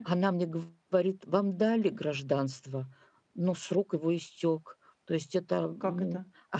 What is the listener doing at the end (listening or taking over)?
listening